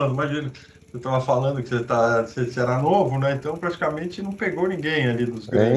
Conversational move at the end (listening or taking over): taking over